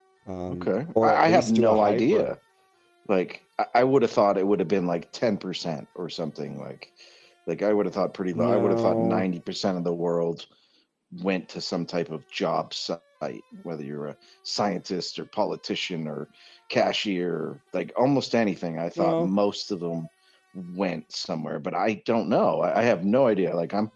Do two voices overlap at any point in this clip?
Yes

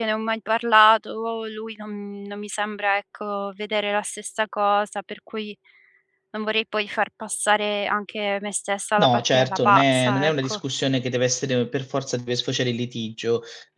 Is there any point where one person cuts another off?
Yes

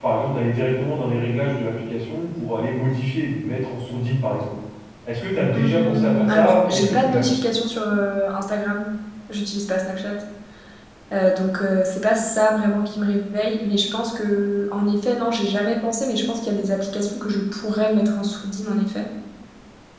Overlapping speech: Yes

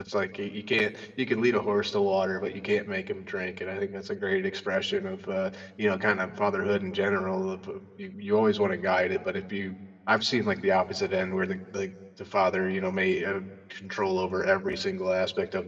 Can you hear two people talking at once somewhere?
No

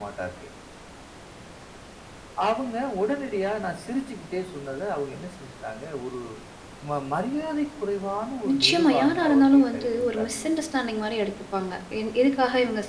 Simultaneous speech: Yes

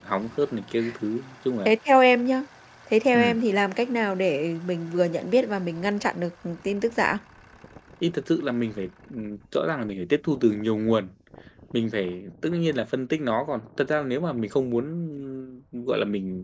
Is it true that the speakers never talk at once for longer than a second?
Yes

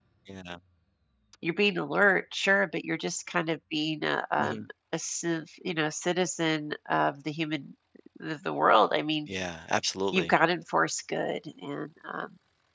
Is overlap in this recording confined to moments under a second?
Yes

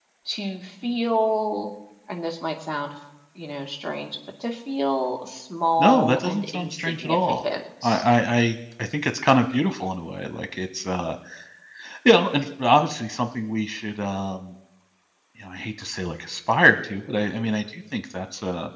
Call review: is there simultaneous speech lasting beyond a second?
Yes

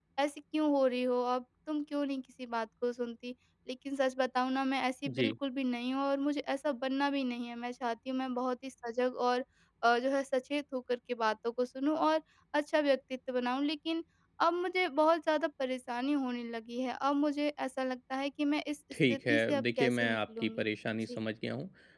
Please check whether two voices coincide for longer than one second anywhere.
Yes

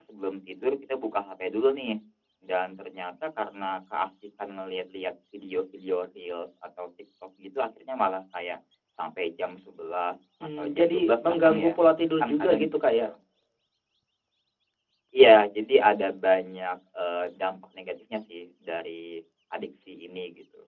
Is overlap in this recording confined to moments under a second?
No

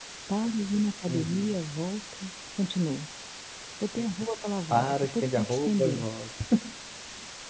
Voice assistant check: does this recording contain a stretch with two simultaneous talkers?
Yes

